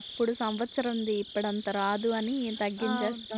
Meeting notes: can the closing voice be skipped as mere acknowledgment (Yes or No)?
No